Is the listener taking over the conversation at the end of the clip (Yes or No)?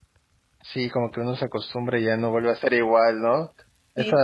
No